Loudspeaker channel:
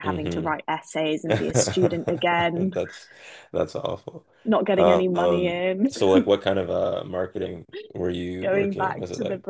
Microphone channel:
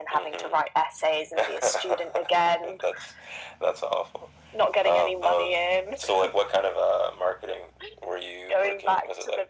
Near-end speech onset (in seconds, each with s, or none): none